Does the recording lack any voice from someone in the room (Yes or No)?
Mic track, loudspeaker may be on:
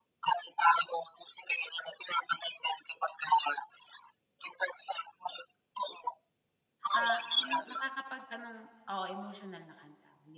No